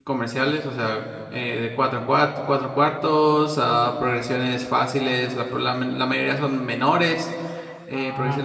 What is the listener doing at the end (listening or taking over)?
taking over